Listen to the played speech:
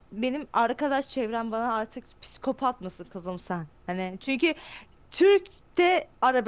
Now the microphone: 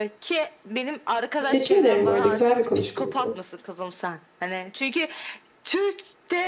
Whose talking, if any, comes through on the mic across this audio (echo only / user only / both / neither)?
both